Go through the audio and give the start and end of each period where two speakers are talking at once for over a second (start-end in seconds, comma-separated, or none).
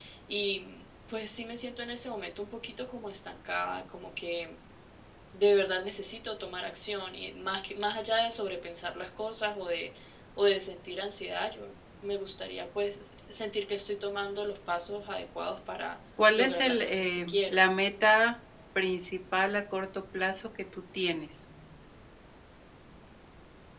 16.4-17.6